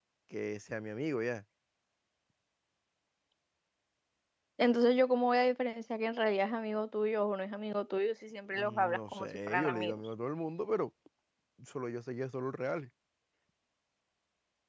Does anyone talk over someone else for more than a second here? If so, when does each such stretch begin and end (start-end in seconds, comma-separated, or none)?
8.5-10.0